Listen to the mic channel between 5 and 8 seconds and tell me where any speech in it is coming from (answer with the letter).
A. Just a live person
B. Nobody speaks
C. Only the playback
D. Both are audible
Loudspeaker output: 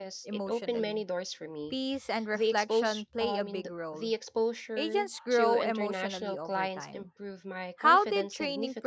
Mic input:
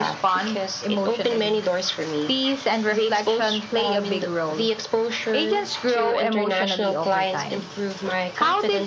C